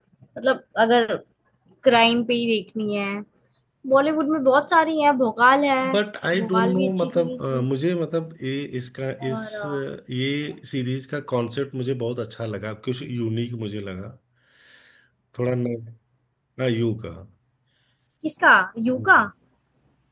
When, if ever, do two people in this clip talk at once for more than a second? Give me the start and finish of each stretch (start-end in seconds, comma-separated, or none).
6.3-7.7